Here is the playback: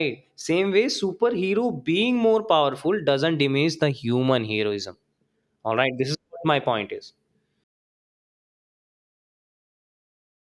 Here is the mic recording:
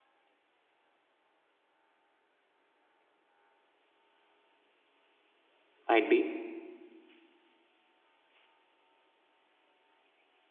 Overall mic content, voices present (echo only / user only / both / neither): user only